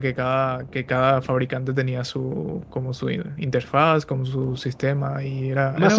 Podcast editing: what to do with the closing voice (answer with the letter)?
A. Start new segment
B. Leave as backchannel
A